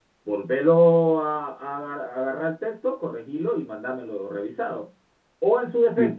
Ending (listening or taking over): listening